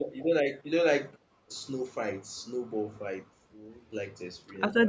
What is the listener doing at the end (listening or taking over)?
taking over